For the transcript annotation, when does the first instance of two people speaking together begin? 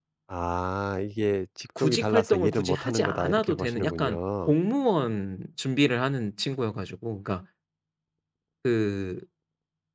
1.8 s

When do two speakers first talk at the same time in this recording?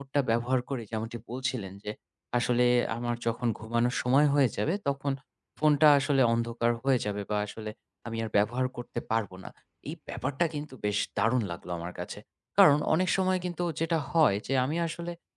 none

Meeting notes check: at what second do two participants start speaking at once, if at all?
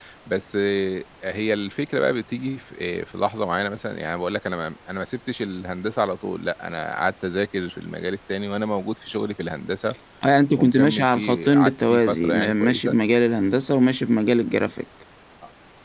10.6 s

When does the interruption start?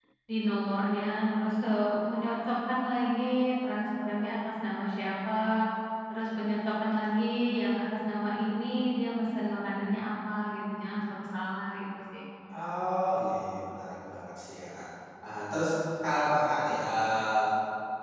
none

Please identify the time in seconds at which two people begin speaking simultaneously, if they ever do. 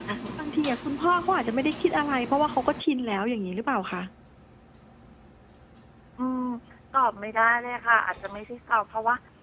none

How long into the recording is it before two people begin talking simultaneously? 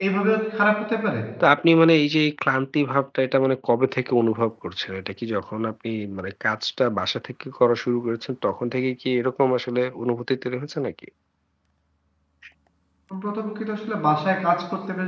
none

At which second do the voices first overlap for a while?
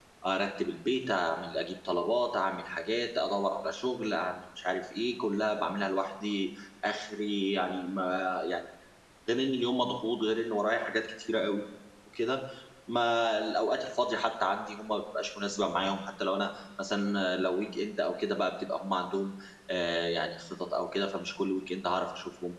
none

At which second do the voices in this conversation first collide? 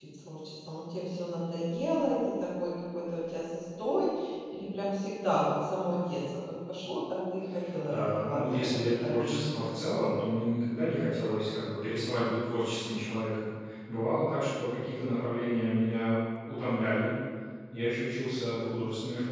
7.9 s

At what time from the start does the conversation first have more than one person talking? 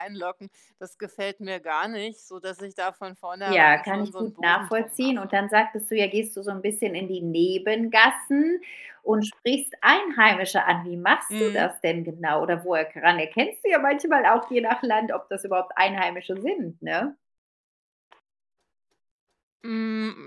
3.5 s

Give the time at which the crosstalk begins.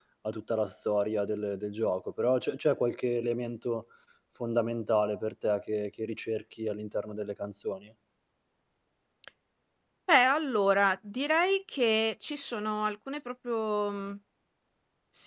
none

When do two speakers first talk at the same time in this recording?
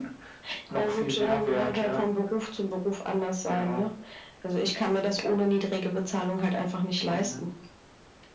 0.8 s

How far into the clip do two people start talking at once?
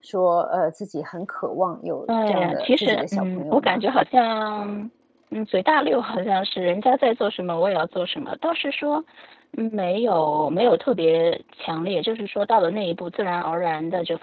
2.1 s

